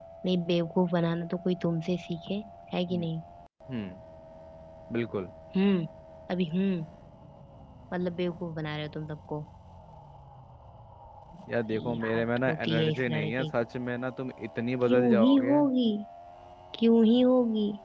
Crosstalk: present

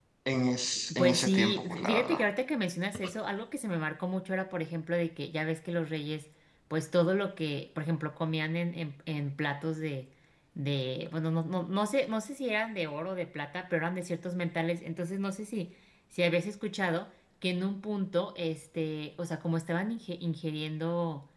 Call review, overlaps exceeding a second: present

